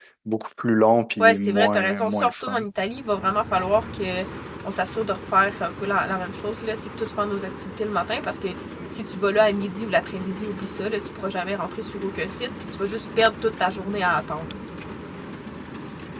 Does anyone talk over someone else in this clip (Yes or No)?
Yes